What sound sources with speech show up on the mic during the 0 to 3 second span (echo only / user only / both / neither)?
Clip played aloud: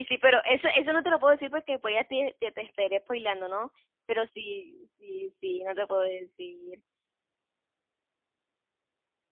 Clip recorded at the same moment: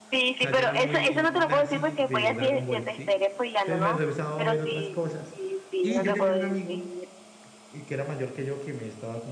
both